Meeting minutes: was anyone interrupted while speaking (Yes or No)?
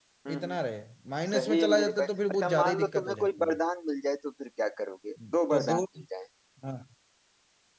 Yes